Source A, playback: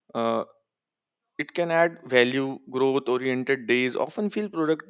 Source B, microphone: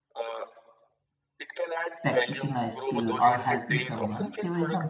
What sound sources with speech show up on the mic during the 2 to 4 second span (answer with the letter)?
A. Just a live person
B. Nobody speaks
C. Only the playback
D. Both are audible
D